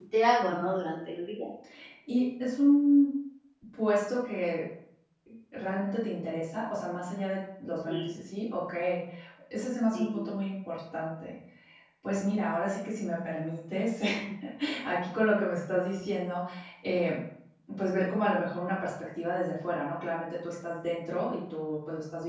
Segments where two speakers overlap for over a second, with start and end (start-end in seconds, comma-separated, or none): none